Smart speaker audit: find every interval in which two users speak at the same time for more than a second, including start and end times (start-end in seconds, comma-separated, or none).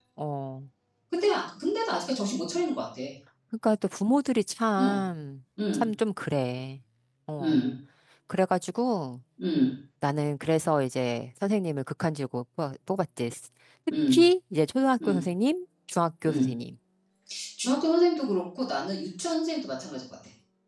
none